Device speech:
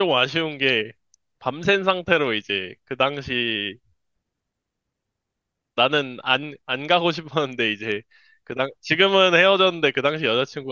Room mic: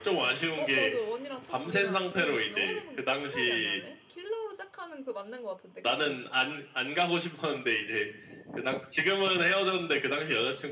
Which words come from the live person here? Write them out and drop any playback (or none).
어, 맞아. 원이랑 투 두 개 나왔지? 그 영화 제목이 딱 생각이 안 나네. 킬러로 시작하는 그 맞는 것 같은데, 그치?